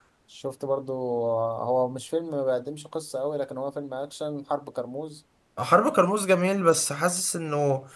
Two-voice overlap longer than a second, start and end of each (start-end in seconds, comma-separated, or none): none